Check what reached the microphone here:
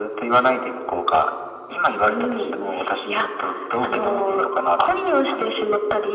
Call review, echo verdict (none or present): present